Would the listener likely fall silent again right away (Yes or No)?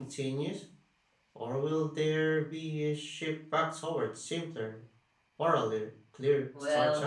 No